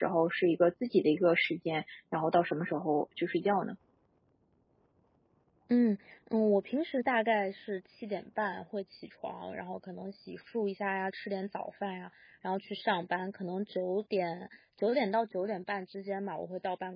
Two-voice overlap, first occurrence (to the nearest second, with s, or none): none